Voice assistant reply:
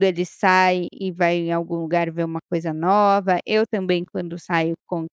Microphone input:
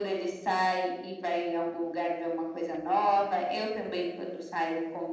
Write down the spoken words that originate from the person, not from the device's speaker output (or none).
none